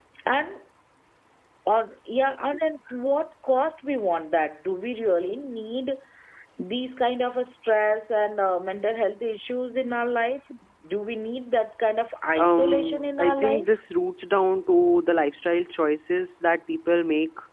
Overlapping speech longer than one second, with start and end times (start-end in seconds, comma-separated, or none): 12.3-13.7